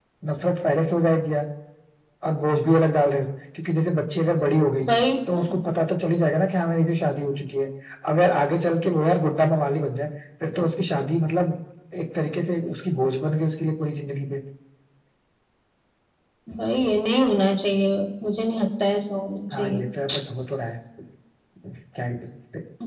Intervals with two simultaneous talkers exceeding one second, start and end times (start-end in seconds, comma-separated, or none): none